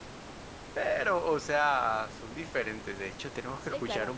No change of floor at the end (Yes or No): Yes